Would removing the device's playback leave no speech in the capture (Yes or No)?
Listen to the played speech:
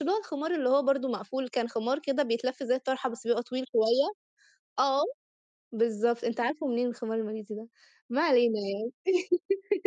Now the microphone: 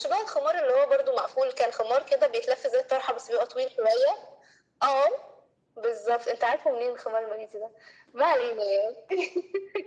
Yes